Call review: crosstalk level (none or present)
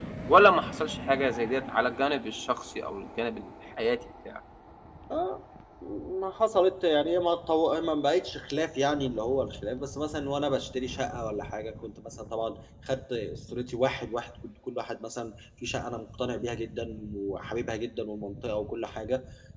none